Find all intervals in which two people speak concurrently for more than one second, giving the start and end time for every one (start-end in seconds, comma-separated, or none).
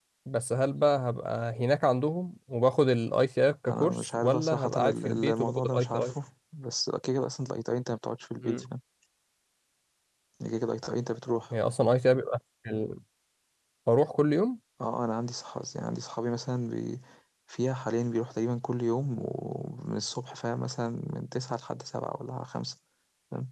3.7-6.1